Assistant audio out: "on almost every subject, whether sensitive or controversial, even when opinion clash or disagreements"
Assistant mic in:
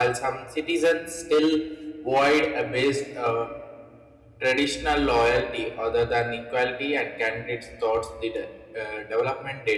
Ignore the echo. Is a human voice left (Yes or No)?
Yes